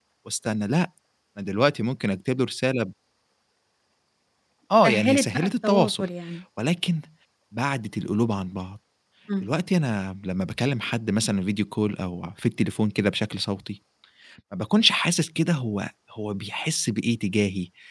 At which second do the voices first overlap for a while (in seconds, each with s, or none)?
4.8 s